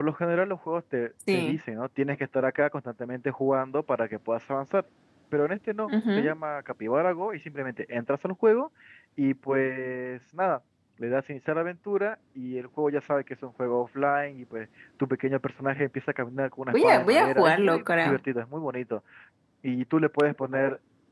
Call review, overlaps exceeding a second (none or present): present